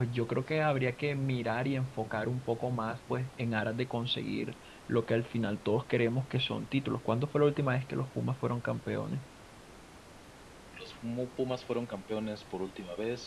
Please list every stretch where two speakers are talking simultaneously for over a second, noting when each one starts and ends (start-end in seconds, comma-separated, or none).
none